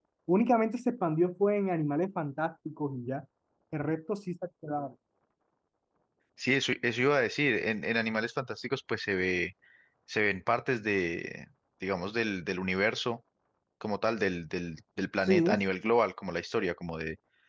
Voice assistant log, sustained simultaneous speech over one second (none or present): none